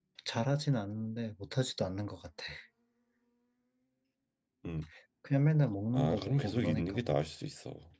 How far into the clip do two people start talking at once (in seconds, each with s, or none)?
5.9 s